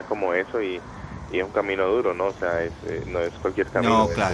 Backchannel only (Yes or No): Yes